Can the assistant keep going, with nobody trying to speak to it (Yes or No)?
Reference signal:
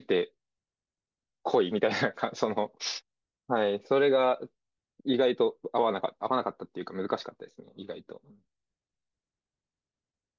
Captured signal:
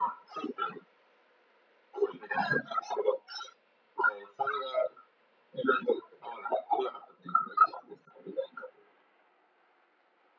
Yes